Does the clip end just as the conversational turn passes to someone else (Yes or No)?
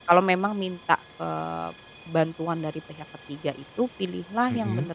No